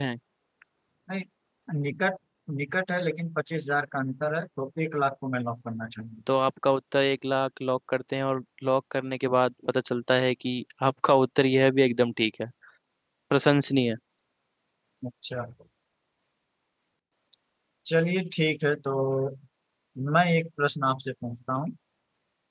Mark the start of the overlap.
none

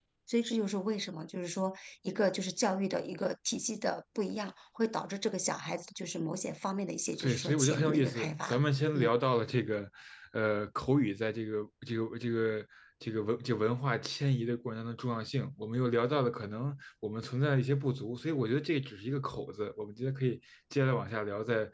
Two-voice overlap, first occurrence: 7.1 s

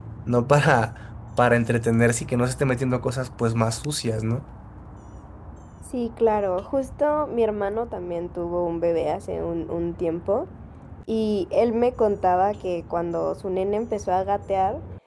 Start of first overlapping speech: none

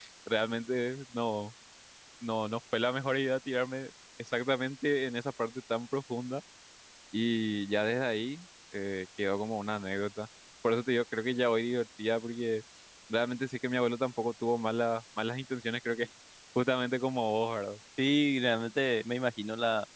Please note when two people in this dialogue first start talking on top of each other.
none

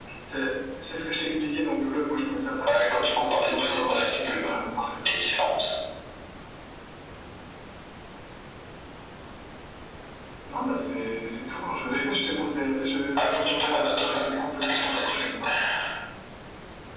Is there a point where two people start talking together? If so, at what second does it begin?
2.7 s

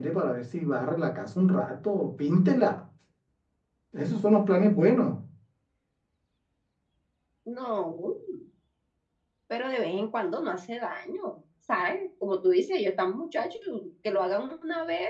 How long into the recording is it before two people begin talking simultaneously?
none

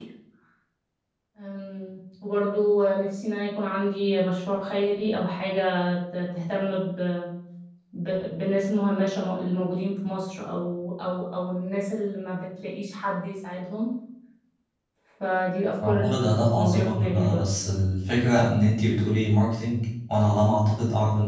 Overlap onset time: 15.8 s

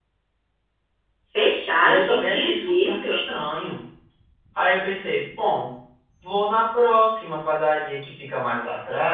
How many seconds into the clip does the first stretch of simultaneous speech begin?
1.8 s

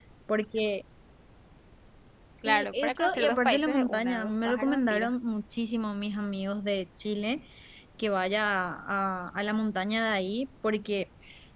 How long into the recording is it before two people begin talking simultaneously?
2.4 s

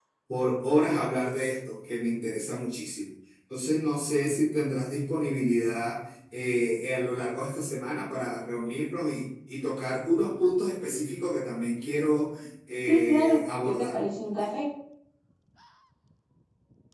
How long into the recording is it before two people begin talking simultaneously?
12.9 s

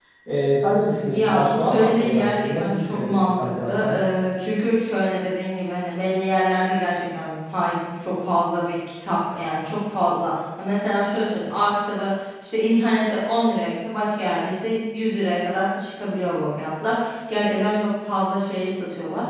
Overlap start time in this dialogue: 1.0 s

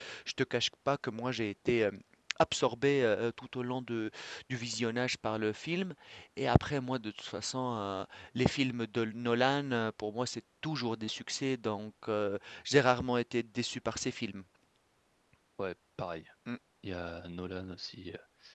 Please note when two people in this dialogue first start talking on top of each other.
none

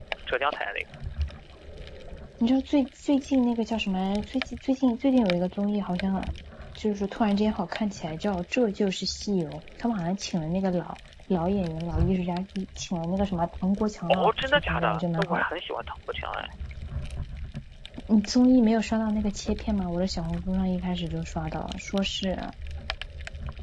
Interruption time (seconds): 14.1 s

